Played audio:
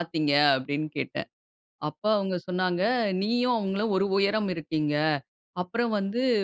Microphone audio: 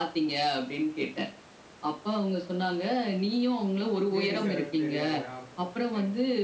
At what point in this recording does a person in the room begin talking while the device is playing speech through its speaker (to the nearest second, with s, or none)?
4 s